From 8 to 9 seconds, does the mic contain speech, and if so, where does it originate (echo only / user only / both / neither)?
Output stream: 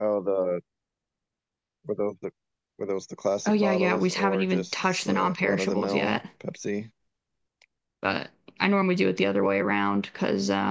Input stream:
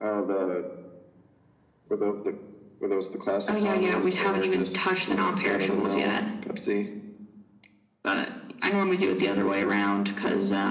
echo only